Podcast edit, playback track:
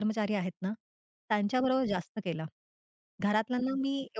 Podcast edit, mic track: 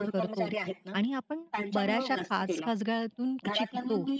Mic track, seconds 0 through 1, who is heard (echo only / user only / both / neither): both